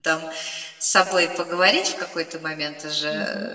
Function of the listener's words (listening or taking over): taking over